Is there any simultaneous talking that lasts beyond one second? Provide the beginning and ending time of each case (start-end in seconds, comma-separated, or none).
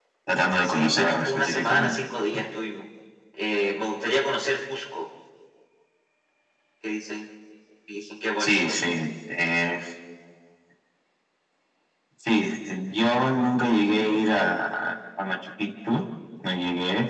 0.6-1.9